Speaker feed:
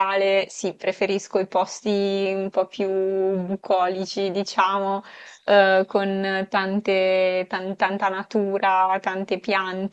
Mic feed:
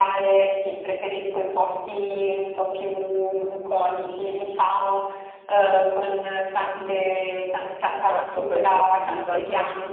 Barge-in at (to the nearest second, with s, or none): 8 s